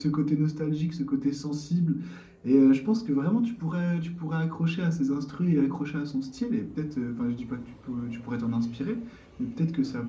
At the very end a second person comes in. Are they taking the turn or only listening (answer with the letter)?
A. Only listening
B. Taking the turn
A